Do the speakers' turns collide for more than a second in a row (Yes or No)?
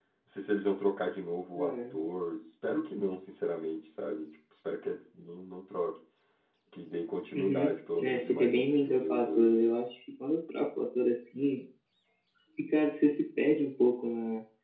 Yes